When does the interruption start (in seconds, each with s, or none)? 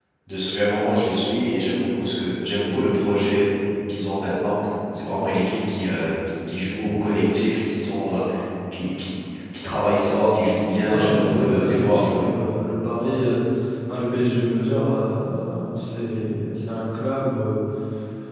10.8 s